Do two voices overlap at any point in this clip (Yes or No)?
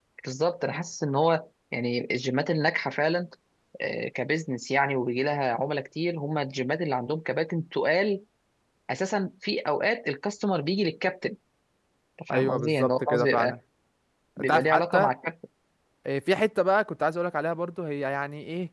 Yes